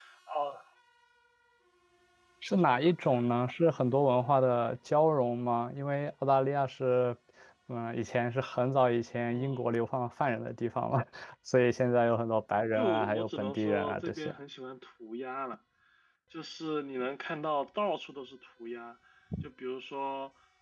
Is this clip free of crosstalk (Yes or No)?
No